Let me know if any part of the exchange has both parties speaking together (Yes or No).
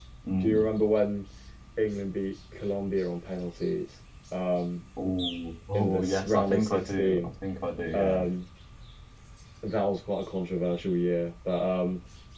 Yes